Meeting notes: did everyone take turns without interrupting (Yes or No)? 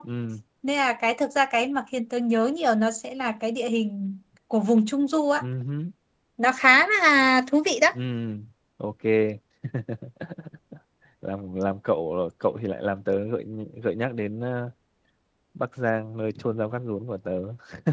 Yes